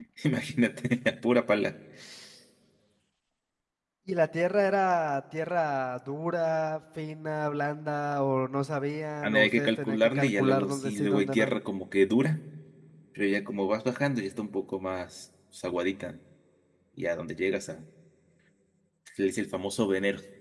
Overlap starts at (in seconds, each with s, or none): 9.2 s